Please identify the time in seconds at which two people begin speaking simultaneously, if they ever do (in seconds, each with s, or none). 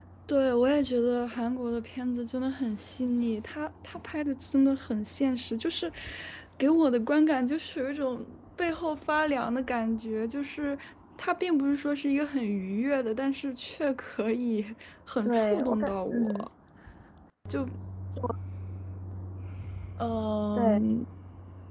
15.2 s